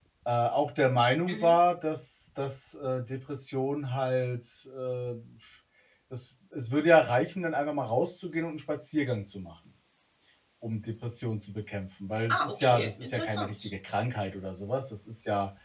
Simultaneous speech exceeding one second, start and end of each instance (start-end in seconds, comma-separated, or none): 12.3-13.7